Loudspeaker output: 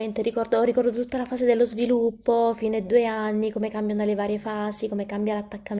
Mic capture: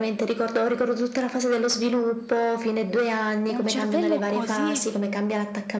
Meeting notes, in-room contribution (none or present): present